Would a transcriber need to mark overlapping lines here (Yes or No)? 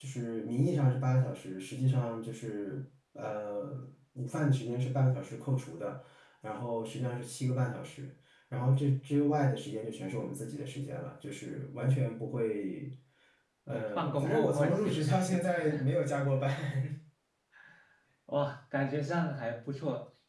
Yes